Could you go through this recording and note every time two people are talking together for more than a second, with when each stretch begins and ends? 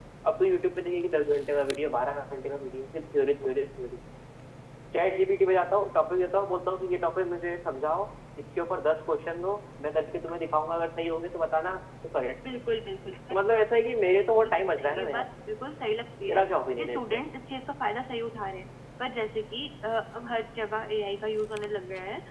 14.0-15.2

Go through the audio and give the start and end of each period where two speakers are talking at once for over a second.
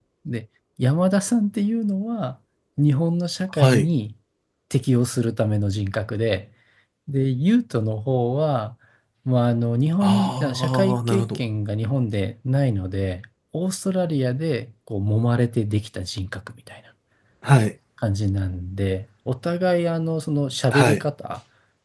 10.0-11.4

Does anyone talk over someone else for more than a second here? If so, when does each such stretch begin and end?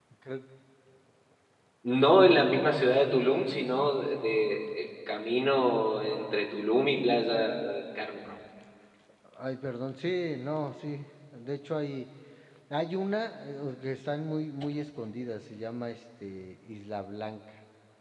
none

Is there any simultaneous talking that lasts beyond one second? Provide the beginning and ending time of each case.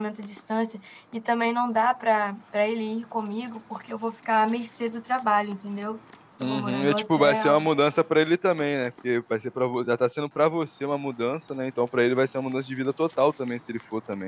6.4-7.7

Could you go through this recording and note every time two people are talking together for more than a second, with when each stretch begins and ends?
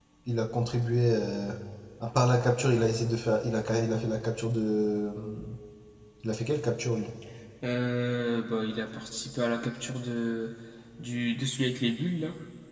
none

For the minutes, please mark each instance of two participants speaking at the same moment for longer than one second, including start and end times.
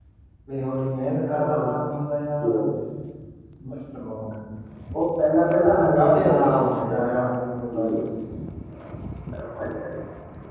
5.9-7.2

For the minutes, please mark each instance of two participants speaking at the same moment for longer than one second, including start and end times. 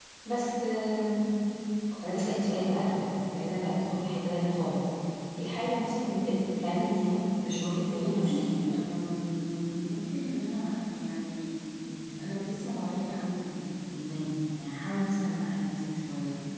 7.5-8.8

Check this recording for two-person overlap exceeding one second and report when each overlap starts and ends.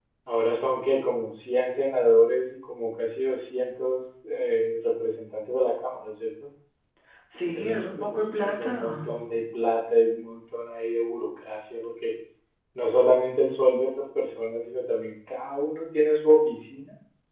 7.5-9.1

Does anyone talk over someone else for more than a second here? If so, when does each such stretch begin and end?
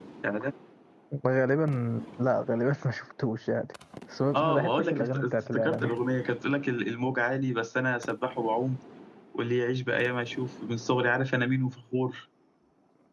4.4-6.0

